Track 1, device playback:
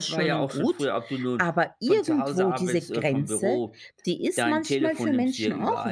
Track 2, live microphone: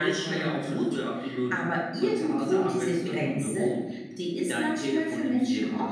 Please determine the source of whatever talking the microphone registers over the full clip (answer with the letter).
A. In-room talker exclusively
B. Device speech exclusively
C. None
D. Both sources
B